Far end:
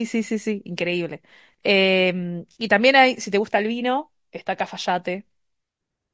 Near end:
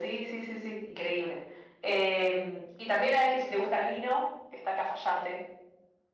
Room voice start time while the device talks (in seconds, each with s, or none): none